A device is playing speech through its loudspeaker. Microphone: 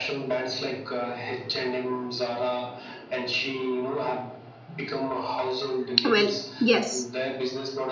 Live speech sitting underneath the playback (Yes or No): No